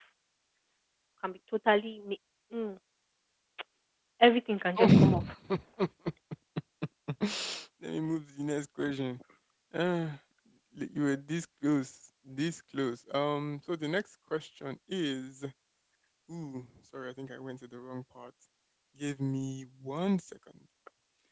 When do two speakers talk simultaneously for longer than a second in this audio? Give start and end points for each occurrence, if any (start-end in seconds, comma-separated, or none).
none